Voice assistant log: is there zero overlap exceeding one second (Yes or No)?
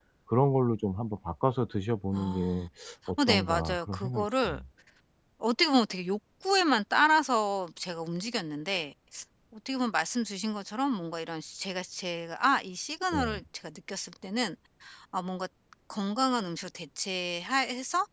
No